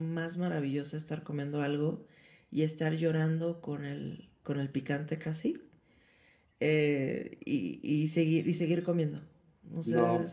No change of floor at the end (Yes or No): No